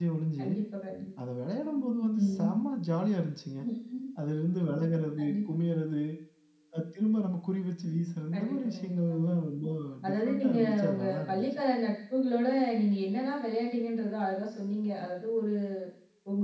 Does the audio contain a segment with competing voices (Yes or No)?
Yes